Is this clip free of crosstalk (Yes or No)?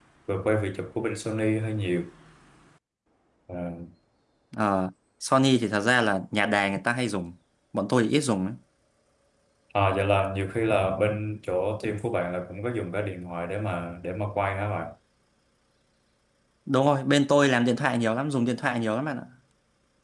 Yes